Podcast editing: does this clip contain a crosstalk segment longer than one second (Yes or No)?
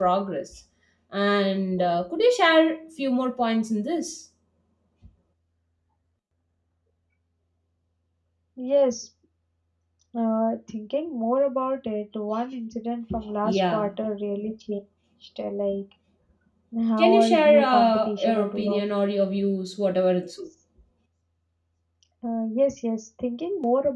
Yes